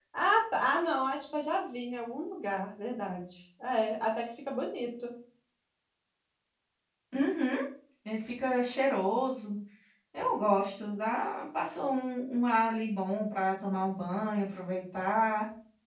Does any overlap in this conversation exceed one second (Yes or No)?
No